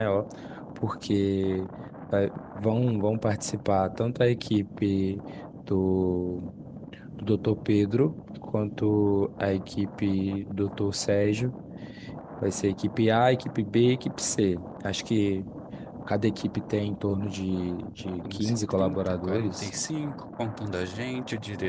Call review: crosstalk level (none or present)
present